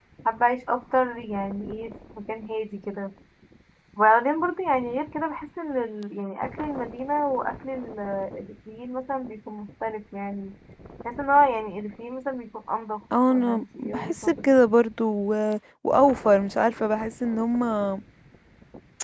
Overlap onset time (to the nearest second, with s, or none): 13 s